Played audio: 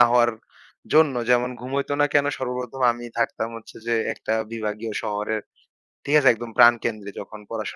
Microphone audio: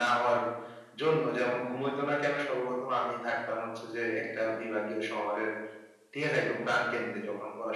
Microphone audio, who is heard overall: echo only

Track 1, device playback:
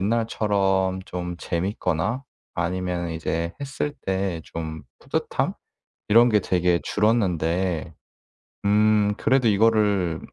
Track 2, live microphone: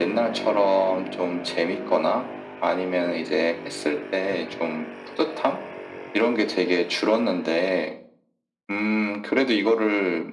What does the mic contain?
echo only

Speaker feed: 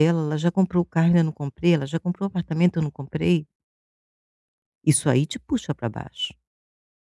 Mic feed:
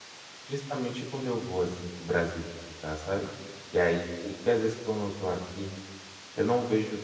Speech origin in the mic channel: user only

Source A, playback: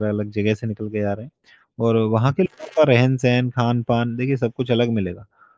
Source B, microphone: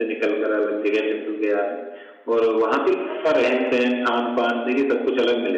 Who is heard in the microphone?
echo only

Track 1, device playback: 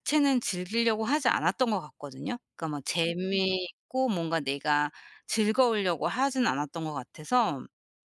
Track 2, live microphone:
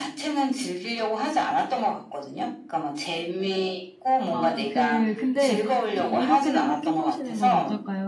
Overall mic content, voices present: both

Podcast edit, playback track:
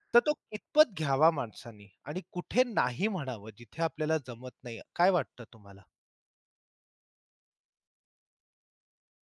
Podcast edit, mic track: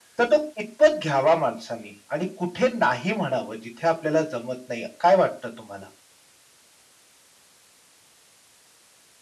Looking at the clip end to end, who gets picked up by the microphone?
echo only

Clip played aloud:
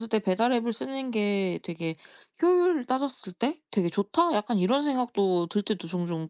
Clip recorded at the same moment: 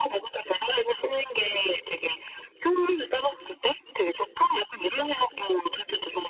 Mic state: echo only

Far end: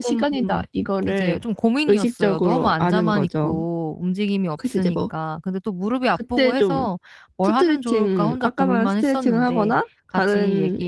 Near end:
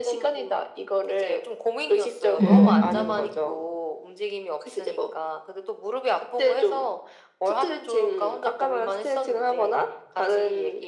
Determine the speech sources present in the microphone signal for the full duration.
both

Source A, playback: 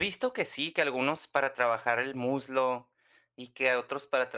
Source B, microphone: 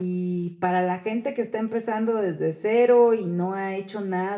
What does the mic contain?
user only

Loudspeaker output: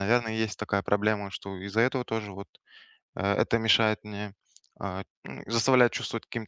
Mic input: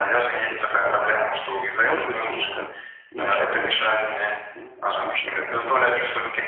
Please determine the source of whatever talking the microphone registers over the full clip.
both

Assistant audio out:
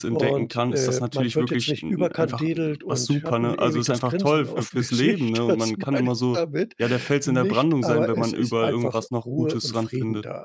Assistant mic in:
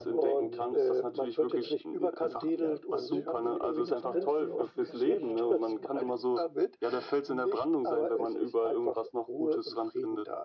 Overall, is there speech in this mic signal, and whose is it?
both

